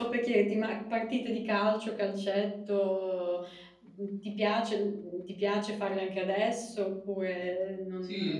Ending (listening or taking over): taking over